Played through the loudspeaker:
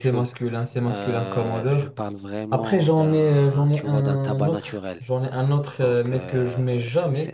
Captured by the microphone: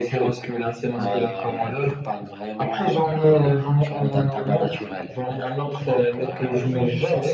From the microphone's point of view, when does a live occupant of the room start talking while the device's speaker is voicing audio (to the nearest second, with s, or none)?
6 s